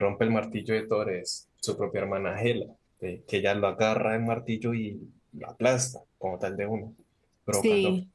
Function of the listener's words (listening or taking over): listening